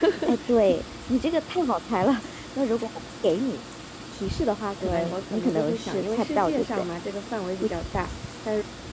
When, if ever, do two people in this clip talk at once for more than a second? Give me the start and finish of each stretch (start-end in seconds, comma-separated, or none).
4.8-6.8